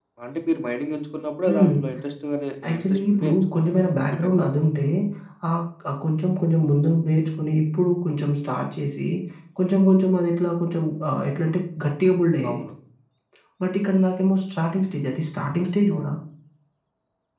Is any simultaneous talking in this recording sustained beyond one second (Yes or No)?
Yes